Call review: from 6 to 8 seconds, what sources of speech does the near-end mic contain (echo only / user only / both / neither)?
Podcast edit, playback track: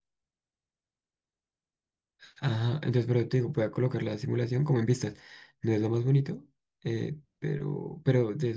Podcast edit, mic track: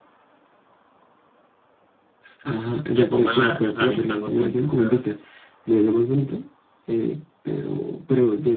echo only